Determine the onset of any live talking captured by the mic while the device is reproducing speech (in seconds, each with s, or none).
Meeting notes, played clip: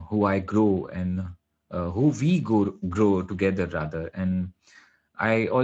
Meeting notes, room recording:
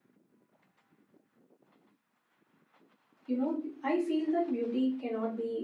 3.2 s